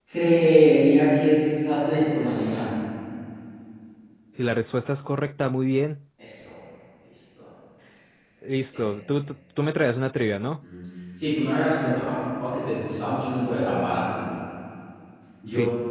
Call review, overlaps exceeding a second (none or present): none